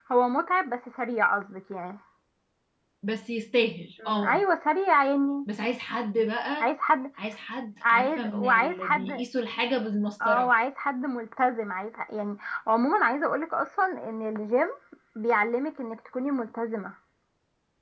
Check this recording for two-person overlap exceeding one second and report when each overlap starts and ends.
7.8-9.1

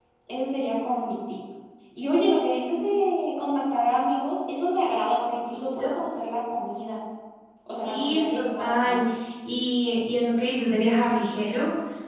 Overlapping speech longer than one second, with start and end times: 7.8-9.1

